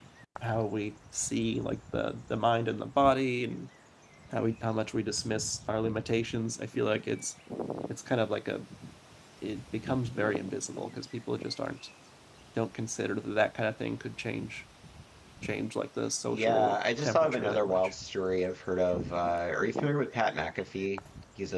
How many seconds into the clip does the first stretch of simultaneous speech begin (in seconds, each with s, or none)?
16.3 s